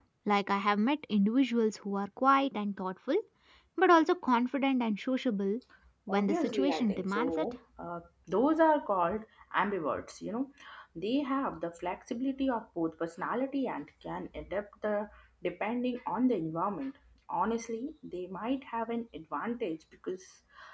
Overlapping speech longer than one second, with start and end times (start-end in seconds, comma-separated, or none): 6.1-7.5